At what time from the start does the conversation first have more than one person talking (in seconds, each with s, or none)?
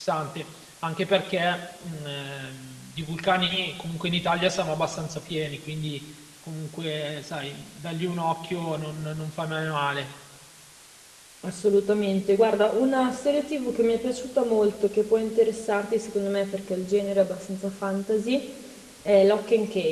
none